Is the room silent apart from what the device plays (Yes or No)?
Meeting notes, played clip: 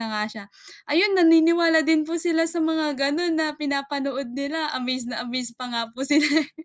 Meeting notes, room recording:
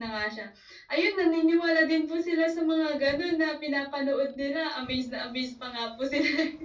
Yes